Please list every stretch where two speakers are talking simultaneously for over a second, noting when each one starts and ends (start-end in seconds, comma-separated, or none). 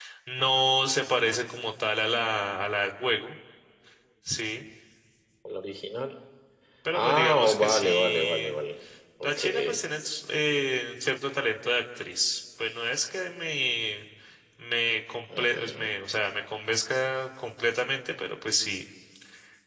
6.9-8.6